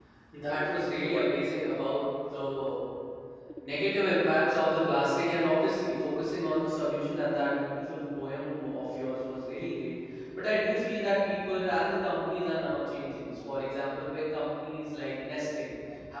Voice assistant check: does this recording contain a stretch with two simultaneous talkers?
Yes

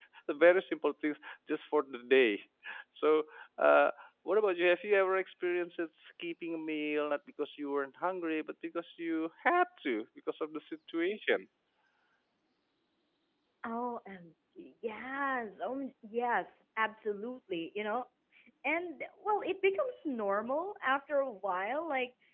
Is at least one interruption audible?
No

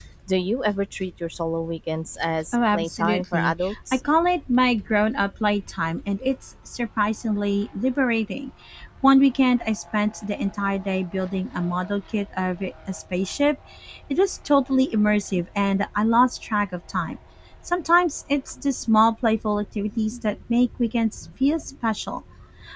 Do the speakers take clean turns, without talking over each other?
No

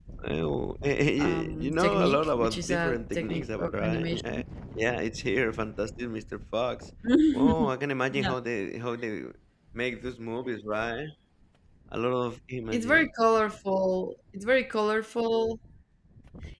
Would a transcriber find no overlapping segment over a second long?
No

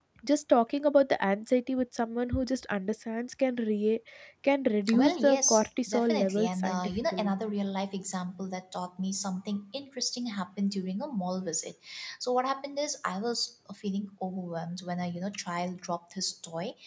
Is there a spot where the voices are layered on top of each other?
Yes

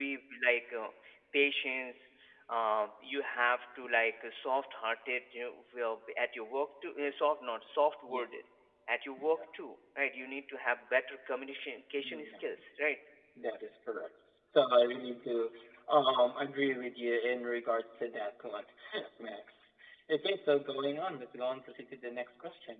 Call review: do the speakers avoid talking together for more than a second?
Yes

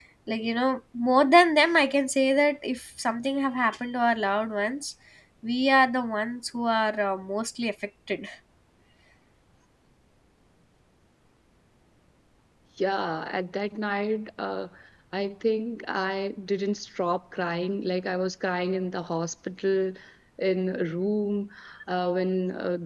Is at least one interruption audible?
No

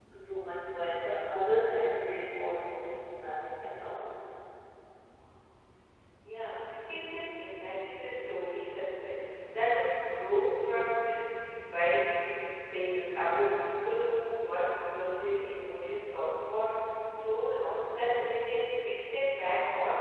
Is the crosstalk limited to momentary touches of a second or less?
Yes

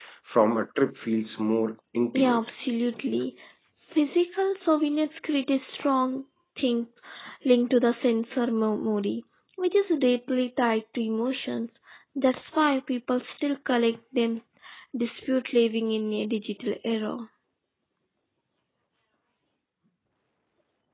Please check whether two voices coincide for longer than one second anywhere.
No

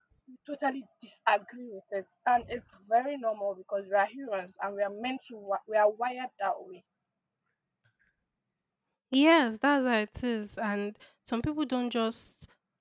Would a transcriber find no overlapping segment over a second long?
Yes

